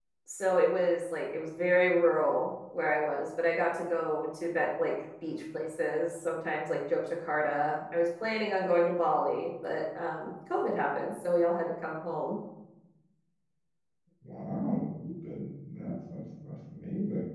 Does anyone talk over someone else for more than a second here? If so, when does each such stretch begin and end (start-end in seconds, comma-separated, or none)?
none